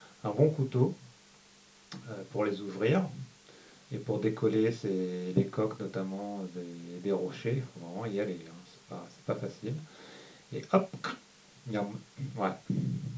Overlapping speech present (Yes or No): No